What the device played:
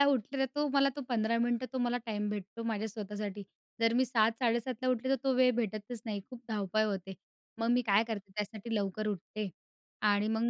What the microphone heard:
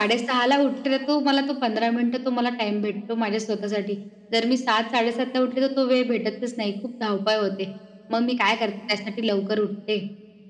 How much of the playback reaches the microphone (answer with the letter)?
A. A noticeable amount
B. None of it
A